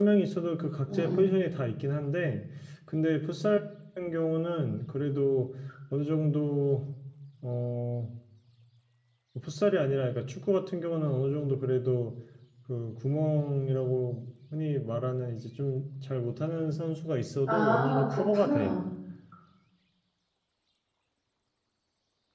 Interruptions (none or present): present